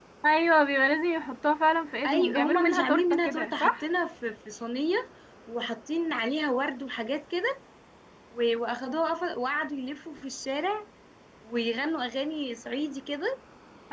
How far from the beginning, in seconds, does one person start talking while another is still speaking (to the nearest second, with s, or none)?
2 s